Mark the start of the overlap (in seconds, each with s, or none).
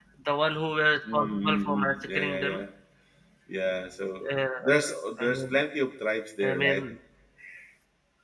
1.1 s